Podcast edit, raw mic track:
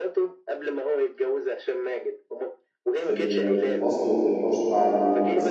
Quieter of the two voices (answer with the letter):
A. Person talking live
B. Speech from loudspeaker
B